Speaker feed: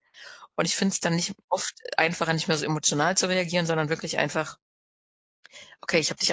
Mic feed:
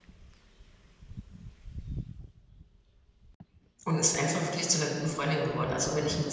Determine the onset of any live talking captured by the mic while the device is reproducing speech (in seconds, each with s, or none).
3.8 s